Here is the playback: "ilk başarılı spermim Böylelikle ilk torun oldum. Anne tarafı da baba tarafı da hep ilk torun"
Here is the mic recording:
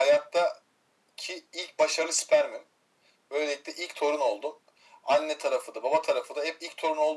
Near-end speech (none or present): none